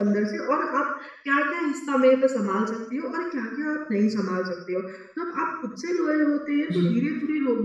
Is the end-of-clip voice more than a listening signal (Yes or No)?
No